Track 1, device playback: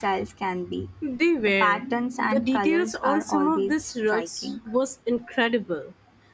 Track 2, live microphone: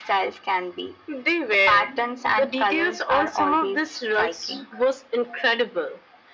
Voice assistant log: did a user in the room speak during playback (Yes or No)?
No